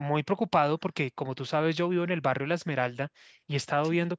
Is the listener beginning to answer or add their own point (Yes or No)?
No